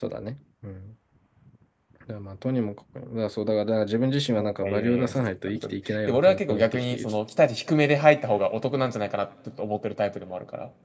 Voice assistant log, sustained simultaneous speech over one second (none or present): present